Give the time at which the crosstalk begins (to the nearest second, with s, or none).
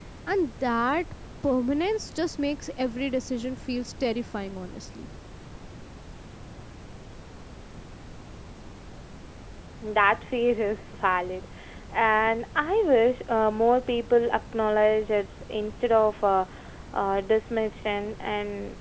none